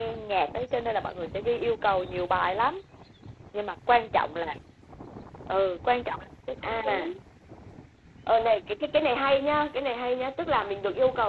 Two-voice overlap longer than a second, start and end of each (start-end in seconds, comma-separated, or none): none